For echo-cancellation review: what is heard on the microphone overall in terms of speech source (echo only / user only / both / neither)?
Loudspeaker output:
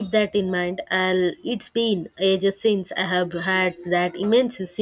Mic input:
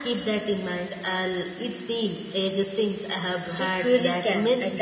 both